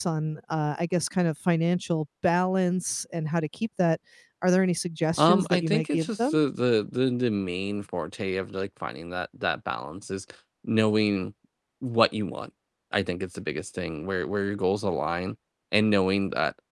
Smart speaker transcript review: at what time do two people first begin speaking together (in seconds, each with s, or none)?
5.2 s